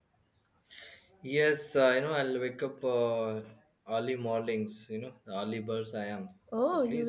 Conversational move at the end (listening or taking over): taking over